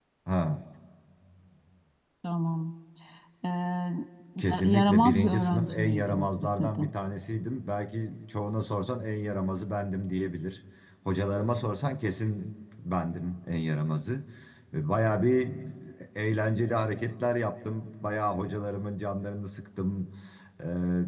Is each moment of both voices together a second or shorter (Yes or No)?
No